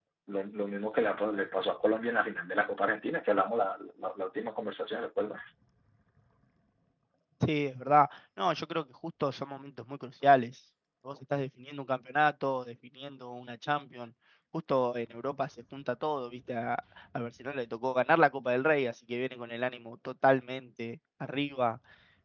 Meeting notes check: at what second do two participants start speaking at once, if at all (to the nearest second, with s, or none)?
none